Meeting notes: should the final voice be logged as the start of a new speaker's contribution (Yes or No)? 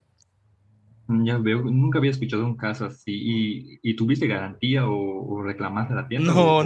Yes